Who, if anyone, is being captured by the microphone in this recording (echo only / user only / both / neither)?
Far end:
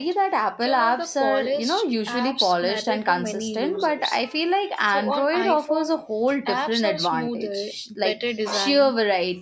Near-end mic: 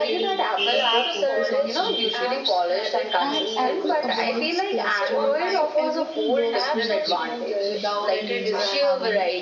both